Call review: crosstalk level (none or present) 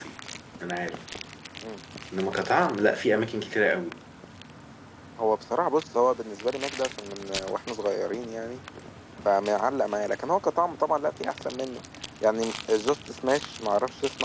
none